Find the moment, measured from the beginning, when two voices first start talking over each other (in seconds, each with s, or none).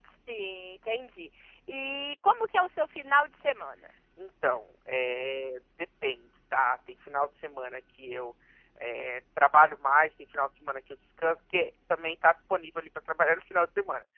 none